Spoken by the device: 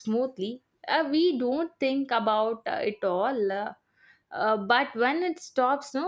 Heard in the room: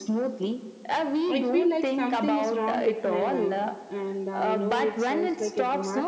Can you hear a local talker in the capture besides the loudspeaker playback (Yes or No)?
Yes